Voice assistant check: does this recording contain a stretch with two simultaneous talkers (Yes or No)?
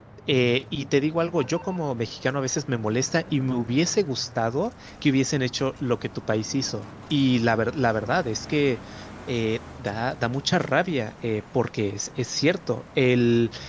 No